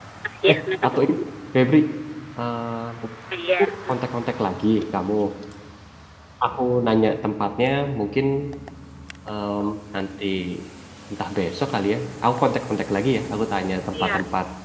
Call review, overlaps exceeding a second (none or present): none